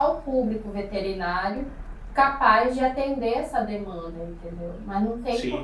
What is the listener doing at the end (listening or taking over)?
taking over